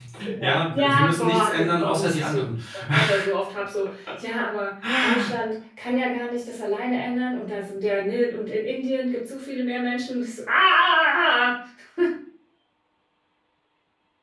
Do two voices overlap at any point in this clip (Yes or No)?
Yes